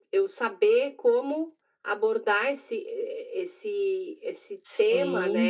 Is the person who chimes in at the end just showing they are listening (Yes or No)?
No